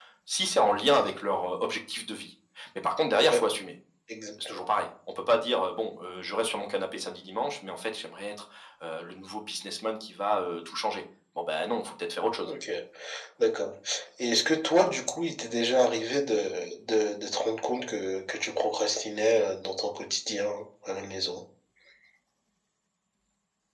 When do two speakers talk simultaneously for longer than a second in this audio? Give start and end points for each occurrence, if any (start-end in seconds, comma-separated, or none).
none